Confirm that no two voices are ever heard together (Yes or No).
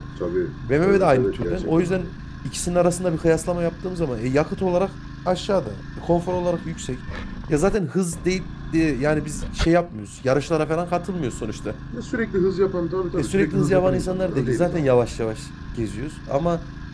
No